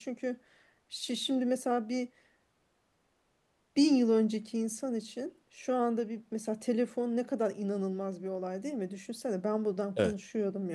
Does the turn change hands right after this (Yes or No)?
No